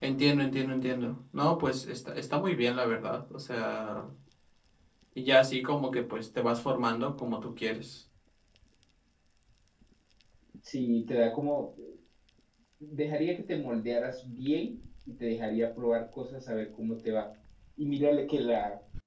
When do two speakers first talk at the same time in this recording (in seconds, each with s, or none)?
none